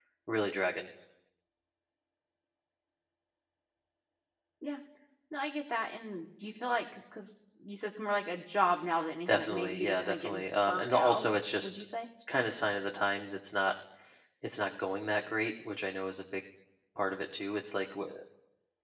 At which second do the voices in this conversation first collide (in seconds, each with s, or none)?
9.2 s